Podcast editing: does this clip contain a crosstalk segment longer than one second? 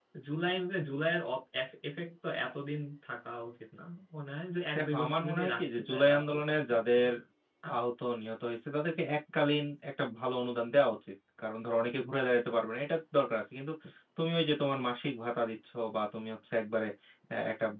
Yes, from 4.8 s

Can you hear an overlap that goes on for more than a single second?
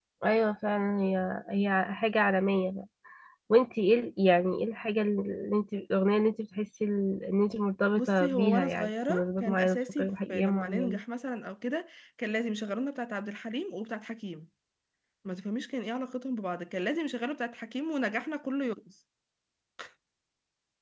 Yes, from 8.0 s

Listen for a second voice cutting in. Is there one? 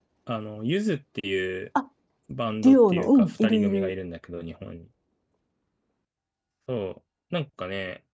Yes, from 2.6 s

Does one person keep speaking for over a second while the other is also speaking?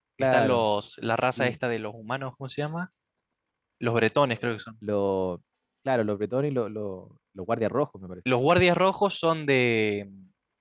No

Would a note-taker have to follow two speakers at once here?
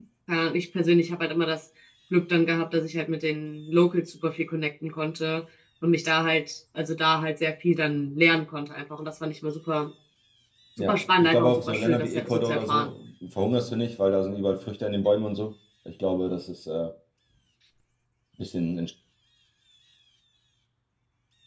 Yes, from 10.8 s

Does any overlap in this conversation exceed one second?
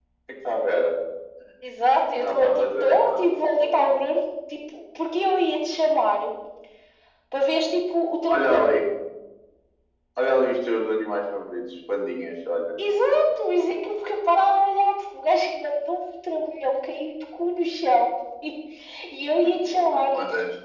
Yes, from 2.2 s

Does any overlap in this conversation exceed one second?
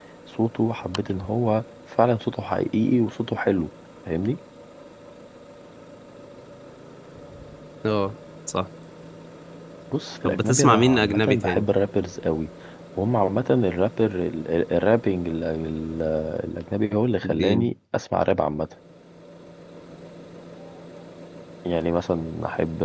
Yes, from 10.2 s

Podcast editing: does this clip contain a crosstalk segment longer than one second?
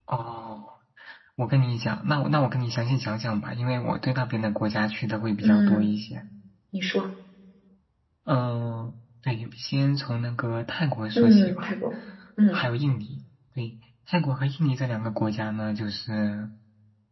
No

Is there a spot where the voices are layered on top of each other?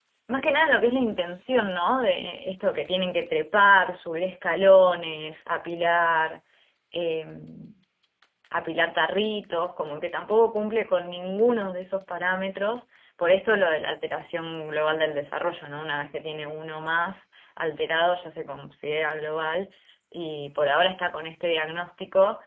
No

